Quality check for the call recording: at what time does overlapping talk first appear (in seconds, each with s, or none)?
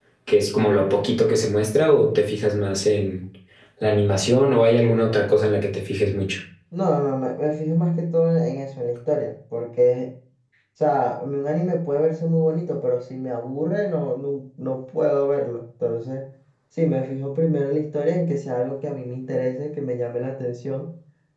none